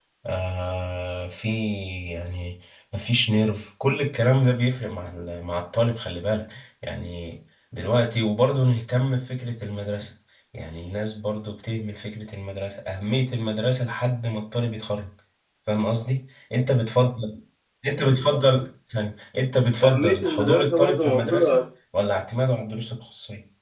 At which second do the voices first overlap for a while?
19.8 s

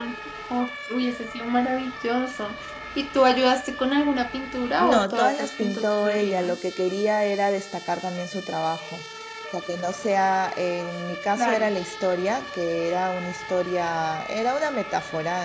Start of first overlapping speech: 4.8 s

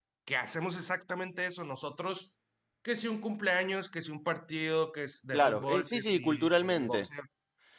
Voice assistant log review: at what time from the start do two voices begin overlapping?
5.3 s

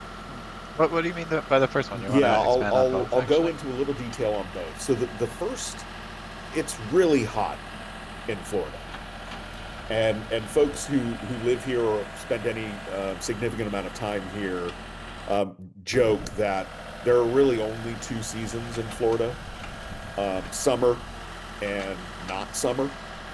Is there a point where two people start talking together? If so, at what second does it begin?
1.9 s

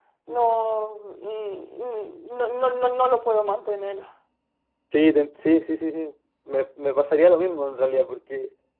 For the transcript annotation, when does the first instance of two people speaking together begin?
none

